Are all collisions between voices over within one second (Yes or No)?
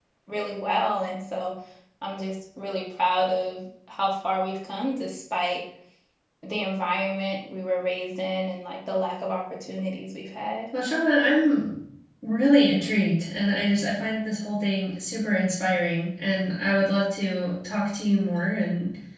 Yes